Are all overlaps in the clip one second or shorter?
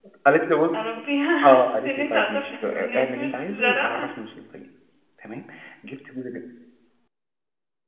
No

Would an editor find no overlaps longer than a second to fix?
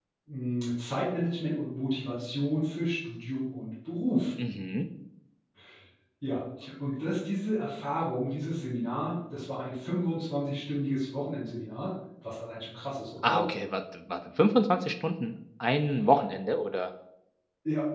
Yes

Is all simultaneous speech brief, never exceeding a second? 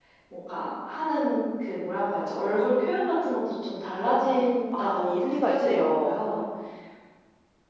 No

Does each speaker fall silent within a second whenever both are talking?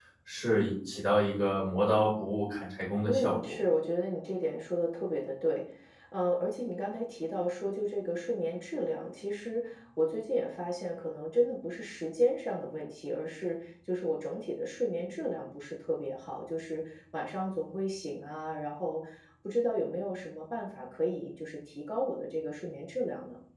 Yes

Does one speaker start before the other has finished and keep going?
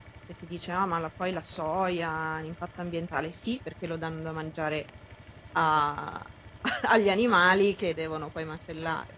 No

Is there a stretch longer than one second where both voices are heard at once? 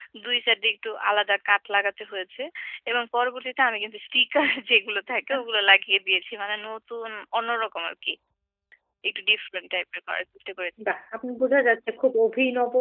No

